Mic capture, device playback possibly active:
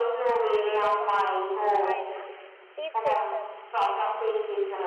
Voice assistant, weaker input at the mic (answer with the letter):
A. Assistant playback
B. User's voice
B